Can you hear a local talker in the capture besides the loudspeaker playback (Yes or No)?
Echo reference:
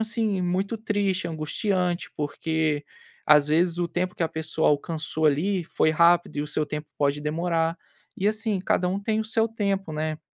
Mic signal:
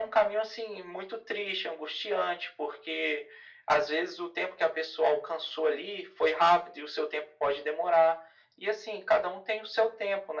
No